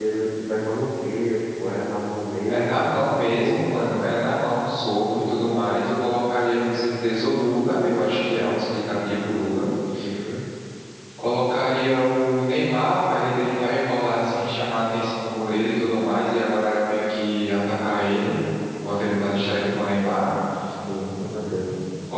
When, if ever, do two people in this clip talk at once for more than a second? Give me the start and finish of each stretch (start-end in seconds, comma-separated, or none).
2.5-3.8